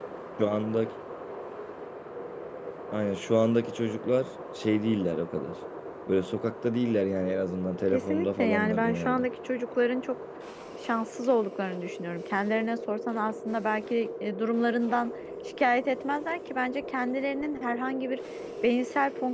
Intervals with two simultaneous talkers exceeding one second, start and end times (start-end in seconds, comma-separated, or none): 7.9-9.2